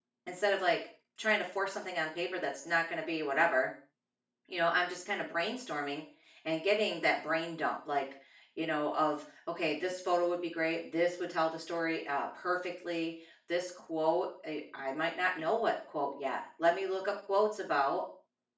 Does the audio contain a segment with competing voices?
No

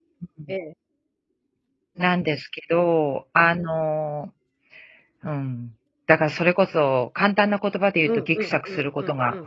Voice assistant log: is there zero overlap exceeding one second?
No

